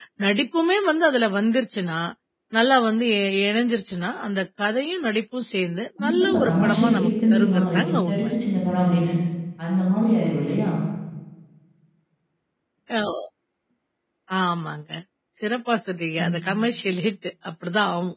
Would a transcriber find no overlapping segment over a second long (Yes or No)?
No